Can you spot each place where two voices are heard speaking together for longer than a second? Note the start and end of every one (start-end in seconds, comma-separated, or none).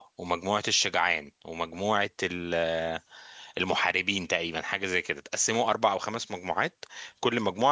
none